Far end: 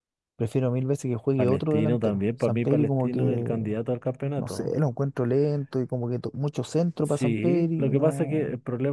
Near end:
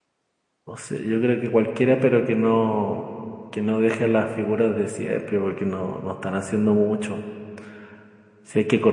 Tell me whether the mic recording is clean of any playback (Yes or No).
Yes